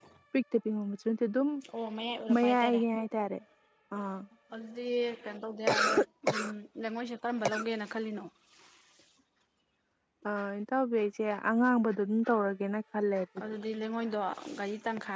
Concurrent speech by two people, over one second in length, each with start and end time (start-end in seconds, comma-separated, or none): none